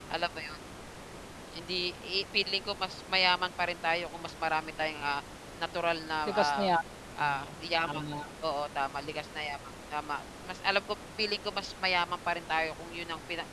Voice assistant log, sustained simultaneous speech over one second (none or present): none